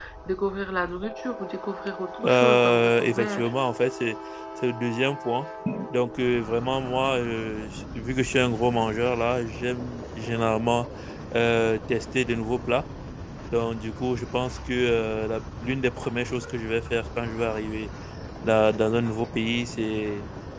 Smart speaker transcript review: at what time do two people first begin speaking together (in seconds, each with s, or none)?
2.2 s